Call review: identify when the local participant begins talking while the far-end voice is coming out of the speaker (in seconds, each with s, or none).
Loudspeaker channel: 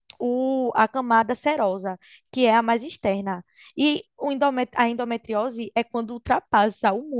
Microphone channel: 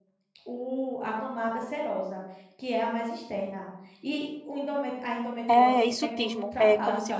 5.5 s